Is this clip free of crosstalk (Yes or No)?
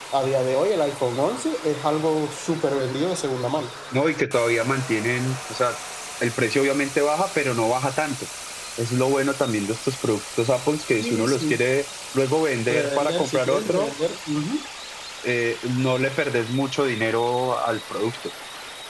No